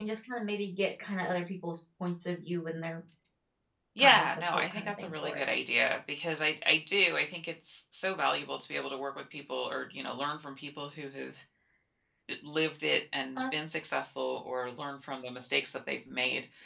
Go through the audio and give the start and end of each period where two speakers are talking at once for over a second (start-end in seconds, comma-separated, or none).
4.0-5.4